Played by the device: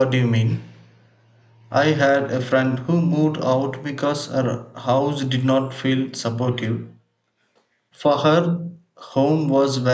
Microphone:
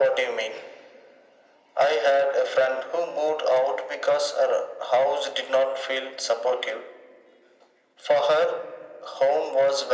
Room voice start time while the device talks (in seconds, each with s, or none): none